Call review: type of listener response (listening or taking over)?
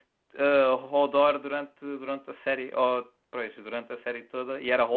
taking over